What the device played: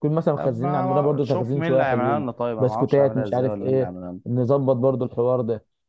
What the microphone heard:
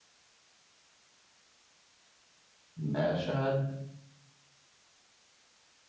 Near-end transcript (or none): ماشي حلو